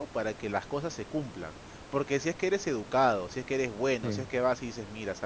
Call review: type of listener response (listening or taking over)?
listening